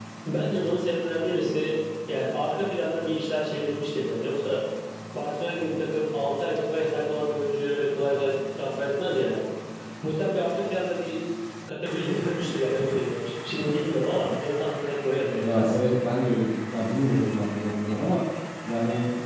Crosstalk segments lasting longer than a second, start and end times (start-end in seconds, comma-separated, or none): none